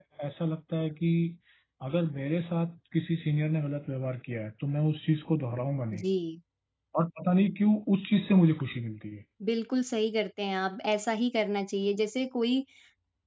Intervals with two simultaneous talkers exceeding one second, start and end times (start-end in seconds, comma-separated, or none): none